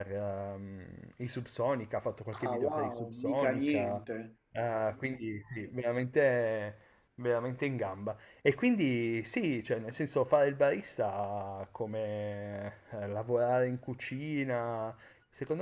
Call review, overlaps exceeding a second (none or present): present